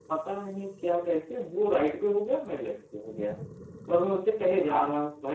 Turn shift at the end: No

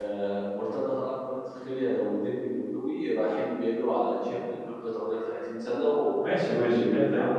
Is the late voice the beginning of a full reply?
Yes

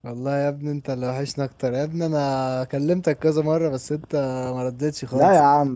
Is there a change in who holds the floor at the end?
Yes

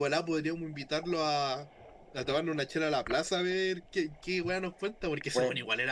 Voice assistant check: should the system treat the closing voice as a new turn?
Yes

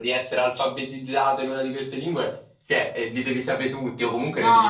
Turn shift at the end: Yes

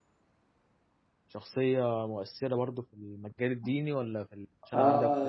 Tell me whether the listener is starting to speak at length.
Yes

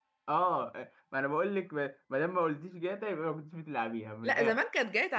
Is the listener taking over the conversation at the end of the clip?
Yes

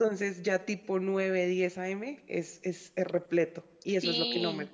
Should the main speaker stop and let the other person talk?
Yes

